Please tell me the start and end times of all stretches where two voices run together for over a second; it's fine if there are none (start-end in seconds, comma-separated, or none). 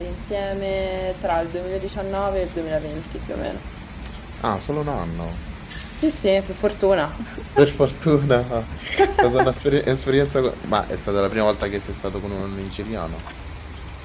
none